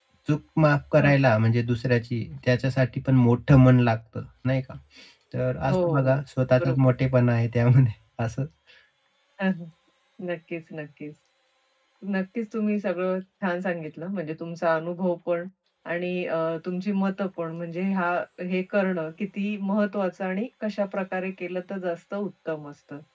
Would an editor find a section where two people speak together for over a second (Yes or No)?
No